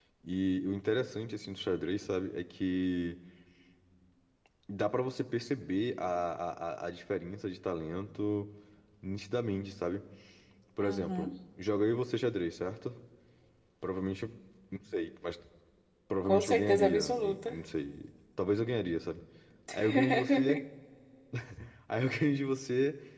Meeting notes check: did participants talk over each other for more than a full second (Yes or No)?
Yes